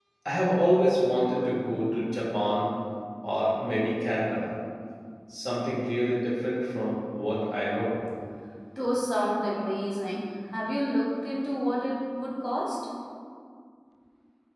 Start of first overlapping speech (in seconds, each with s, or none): none